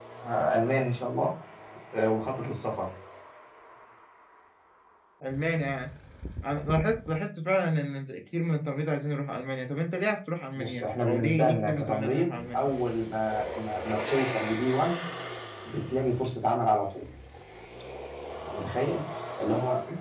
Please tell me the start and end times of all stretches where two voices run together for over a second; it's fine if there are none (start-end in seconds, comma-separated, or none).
10.6-12.7